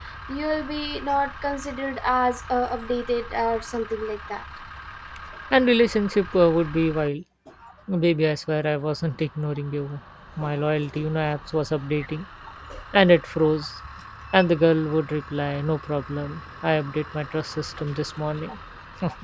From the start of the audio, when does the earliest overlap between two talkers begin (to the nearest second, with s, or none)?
none